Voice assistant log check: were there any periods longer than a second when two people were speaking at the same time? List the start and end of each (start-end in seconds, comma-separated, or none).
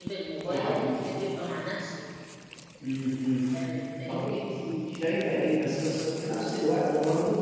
none